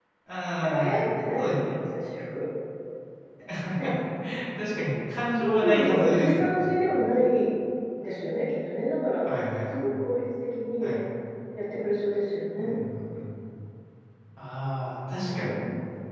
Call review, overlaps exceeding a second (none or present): present